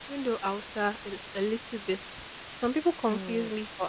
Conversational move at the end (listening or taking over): listening